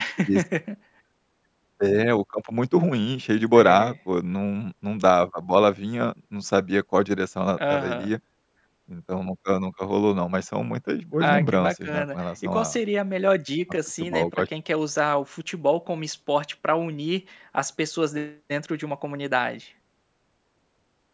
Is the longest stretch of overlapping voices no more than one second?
No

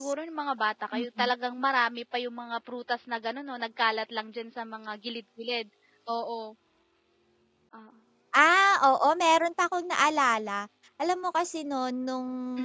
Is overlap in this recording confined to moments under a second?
Yes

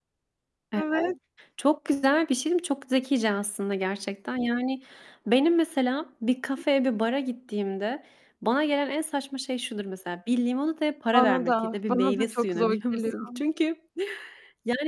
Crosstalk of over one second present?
Yes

